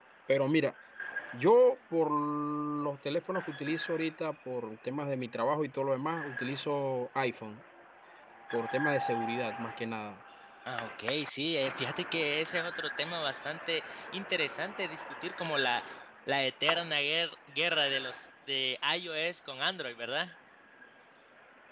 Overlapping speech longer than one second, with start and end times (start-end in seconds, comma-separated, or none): none